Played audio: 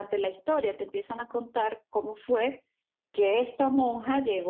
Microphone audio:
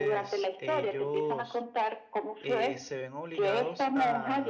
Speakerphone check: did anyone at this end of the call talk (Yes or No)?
Yes